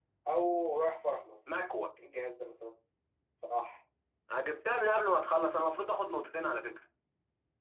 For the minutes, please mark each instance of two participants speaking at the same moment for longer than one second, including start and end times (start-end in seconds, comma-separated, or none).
none